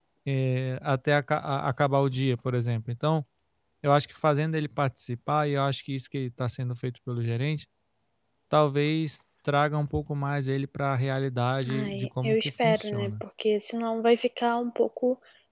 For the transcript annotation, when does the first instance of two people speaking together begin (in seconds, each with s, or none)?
11.6 s